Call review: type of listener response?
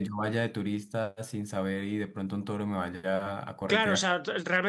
taking over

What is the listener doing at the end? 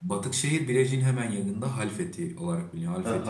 taking over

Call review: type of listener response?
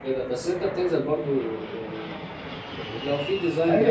taking over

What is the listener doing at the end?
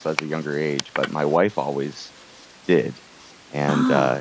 listening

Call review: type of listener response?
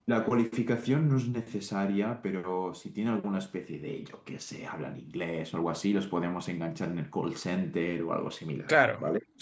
taking over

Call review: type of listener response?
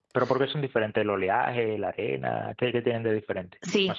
taking over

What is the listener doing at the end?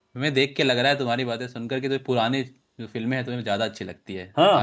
taking over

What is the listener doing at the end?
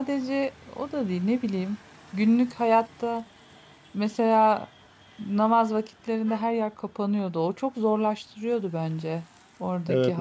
taking over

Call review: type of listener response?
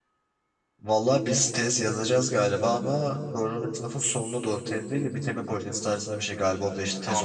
taking over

